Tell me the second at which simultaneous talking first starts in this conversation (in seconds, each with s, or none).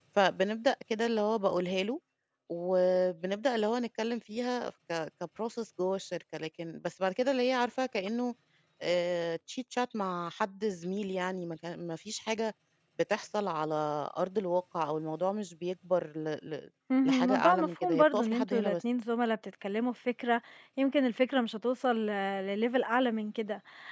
16.9 s